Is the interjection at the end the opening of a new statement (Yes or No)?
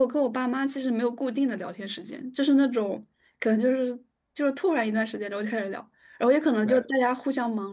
No